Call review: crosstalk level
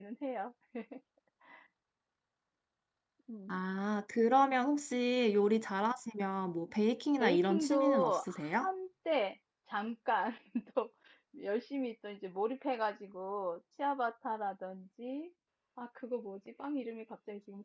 present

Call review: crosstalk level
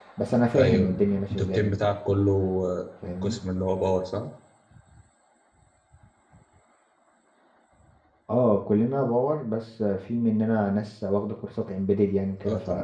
present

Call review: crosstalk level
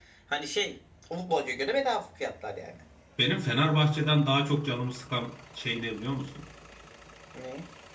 none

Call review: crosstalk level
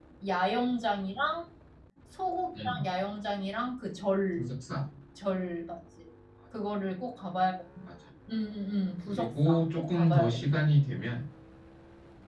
present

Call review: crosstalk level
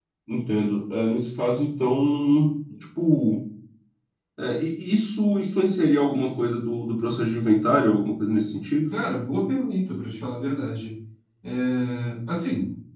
none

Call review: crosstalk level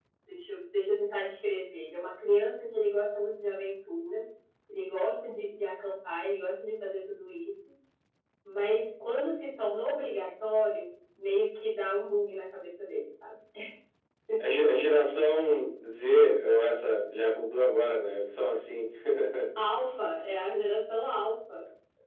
none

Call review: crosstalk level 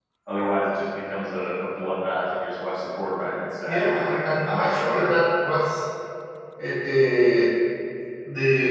present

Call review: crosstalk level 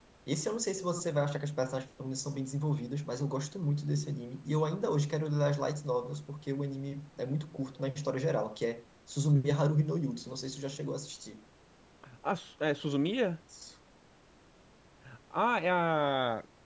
none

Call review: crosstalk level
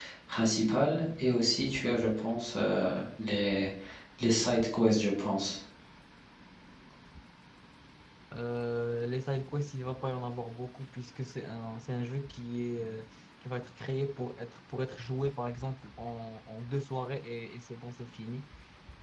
none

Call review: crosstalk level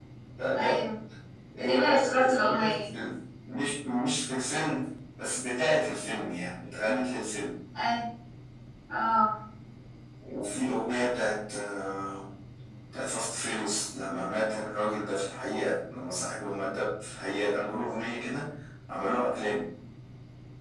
present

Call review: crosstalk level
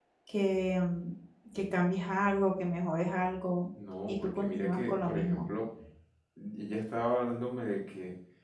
present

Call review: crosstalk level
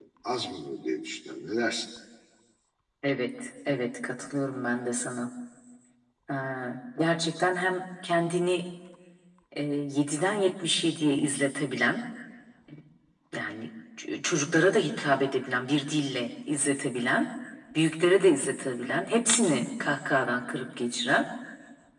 none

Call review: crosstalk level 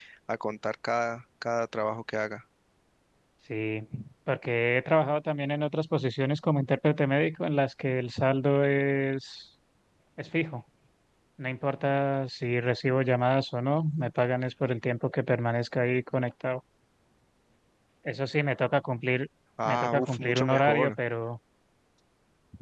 present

